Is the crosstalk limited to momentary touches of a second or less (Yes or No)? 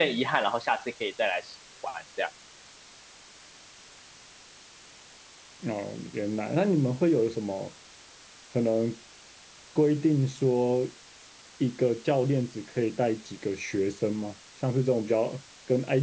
Yes